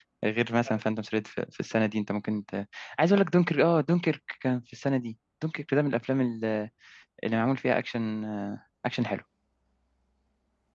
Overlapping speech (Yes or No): No